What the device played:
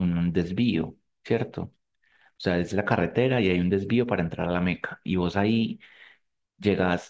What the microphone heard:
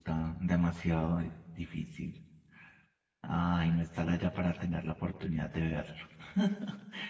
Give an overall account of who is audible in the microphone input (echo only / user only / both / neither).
user only